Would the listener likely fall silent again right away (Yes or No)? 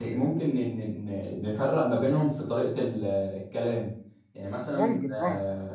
Yes